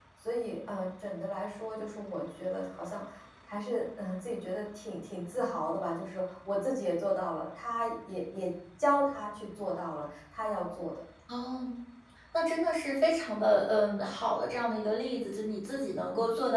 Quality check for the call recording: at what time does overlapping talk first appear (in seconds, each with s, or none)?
none